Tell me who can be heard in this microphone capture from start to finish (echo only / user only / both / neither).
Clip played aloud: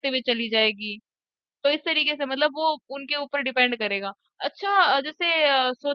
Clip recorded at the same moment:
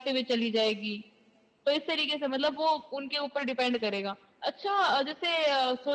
echo only